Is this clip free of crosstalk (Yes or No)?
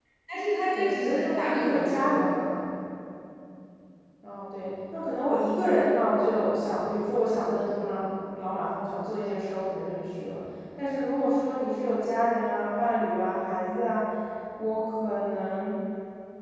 No